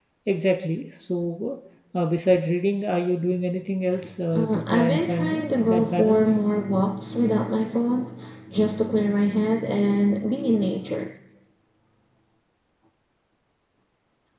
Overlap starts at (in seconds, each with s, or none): 4.3 s